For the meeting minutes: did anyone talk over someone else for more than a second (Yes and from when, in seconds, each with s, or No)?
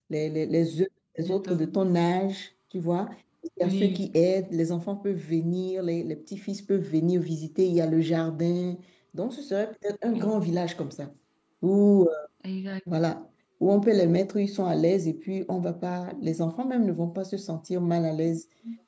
No